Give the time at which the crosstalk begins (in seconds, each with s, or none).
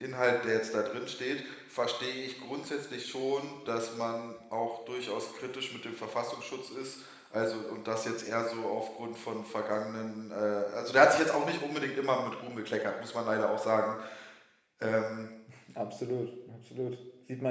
none